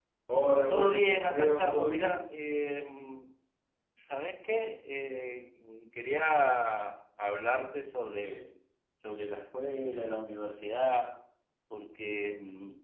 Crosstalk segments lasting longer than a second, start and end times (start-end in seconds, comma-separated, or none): 0.7-2.2